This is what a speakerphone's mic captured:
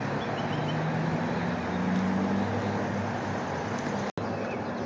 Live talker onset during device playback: none

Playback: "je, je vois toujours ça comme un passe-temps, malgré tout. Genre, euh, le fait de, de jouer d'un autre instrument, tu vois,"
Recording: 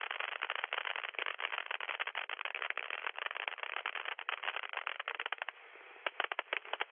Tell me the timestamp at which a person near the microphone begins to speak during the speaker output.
none

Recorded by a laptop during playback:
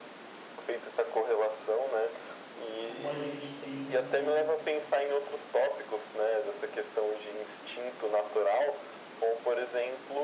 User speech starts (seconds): 3 s

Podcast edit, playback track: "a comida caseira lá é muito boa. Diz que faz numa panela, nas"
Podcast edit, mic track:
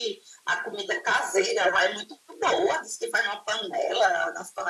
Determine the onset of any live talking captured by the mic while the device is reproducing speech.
none

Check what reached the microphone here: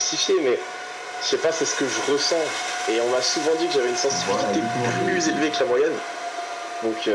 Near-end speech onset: 4 s

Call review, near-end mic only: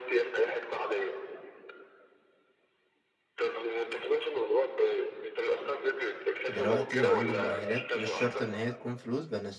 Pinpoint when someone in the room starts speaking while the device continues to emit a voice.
6 s

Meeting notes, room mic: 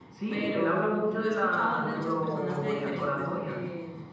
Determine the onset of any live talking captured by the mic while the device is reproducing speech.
none

